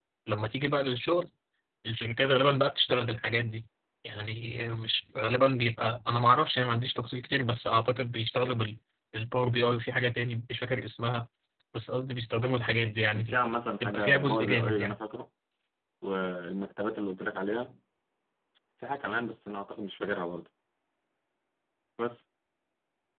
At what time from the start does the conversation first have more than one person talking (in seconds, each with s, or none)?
13.1 s